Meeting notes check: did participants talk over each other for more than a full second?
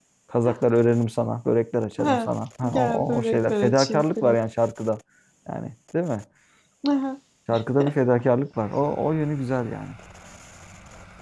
Yes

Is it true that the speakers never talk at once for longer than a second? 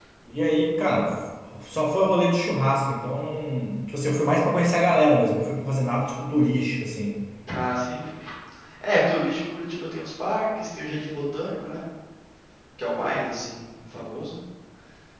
Yes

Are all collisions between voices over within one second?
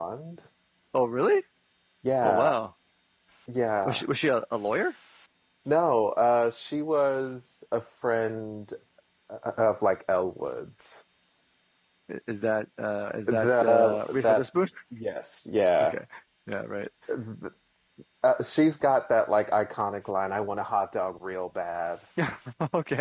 No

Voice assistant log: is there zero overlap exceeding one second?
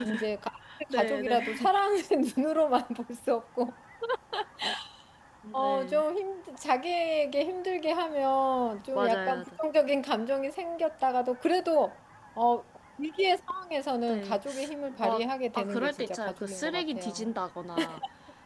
No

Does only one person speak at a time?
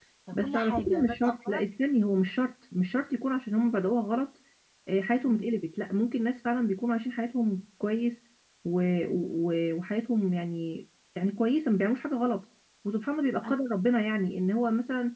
No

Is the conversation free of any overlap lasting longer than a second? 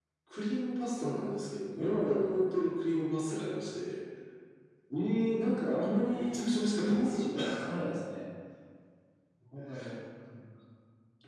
No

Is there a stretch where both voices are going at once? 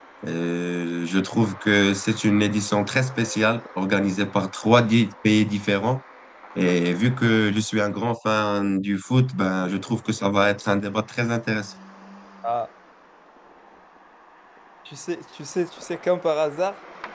No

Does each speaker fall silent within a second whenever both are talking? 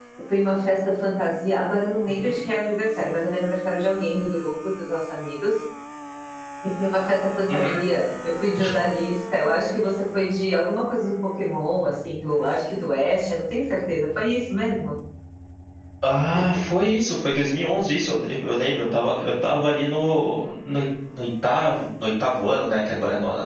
Yes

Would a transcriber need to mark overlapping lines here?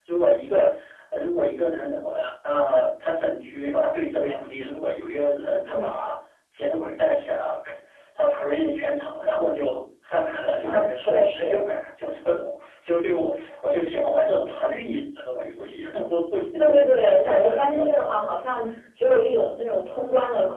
Yes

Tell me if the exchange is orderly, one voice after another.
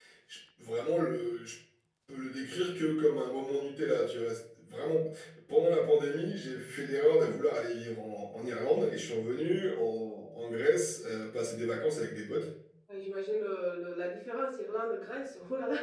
Yes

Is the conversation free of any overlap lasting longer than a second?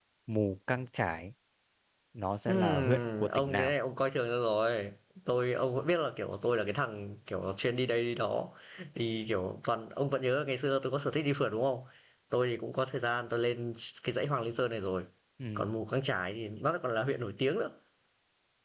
No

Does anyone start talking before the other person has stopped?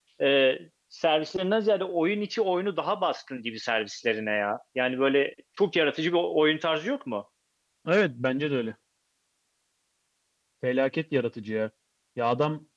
No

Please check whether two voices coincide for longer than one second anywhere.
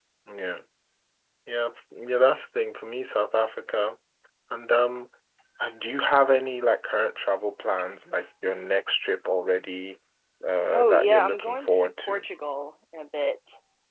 Yes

